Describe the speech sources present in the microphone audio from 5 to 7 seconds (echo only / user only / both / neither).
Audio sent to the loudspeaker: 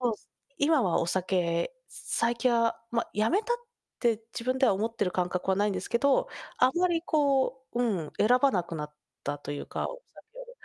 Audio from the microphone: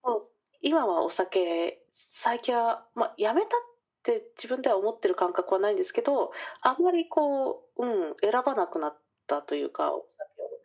echo only